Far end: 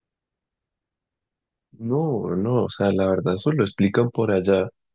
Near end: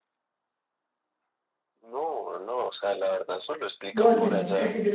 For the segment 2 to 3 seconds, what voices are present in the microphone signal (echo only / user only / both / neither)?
echo only